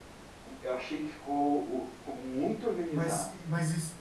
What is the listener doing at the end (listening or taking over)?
taking over